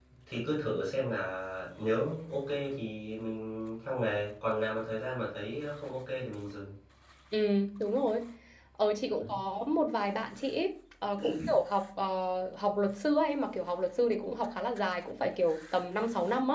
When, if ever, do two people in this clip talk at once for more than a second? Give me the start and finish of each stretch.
none

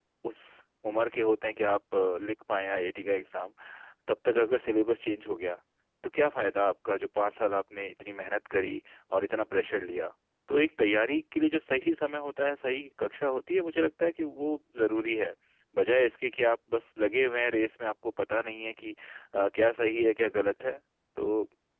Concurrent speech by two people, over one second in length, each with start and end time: none

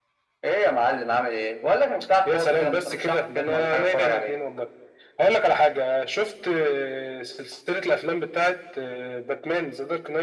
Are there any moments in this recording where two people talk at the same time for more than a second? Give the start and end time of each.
2.2-4.4

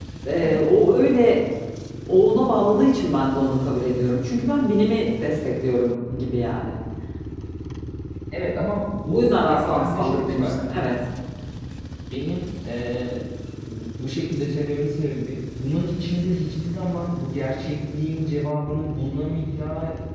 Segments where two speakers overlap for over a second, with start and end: 9.1-10.5

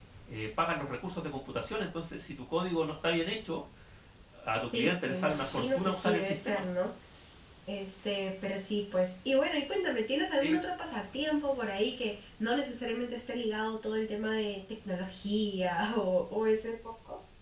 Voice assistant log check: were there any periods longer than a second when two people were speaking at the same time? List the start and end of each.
4.7-6.7

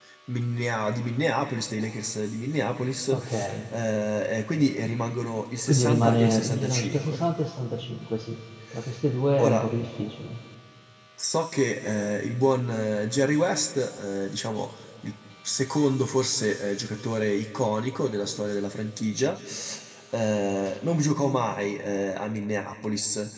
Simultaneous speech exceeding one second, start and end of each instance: 5.7-7.2

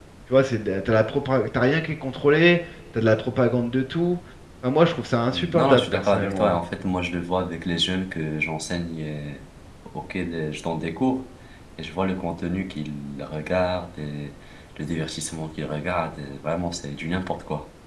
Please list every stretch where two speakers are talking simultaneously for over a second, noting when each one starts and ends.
5.3-6.6

